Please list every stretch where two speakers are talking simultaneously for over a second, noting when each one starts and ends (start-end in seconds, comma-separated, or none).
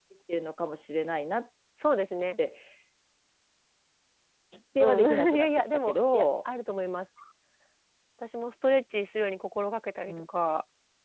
4.8-6.3